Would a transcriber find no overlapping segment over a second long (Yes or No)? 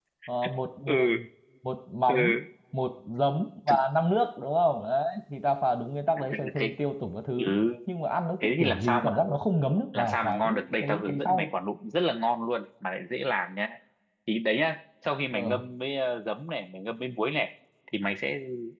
No